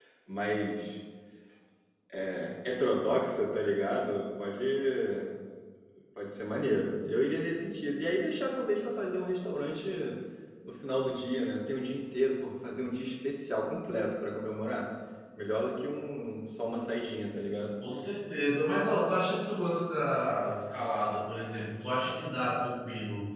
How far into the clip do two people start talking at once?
none

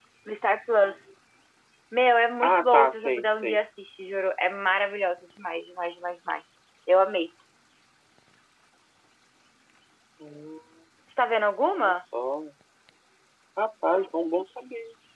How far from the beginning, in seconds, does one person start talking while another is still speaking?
2.4 s

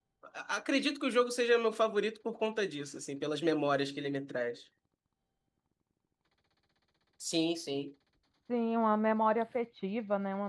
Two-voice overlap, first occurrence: none

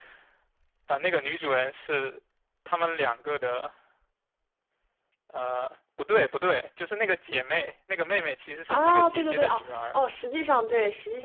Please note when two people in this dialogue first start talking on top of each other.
8.7 s

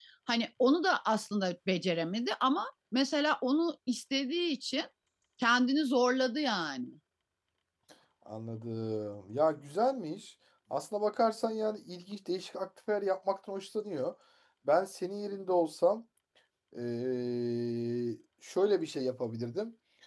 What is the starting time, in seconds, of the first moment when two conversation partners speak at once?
none

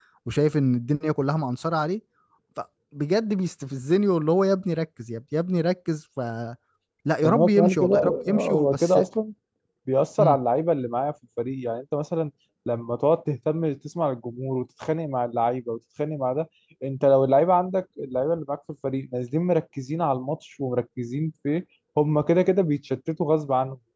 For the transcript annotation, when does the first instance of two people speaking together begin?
7.2 s

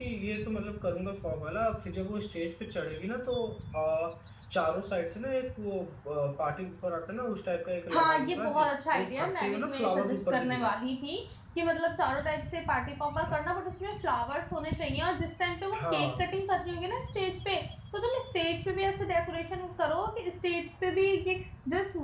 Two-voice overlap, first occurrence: 7.9 s

